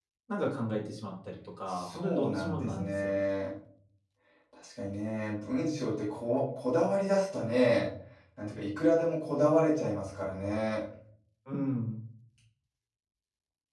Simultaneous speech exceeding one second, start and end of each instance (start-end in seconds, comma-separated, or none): 1.7-3.2